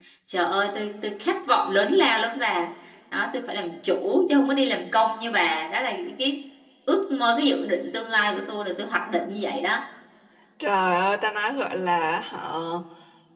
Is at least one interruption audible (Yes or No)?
No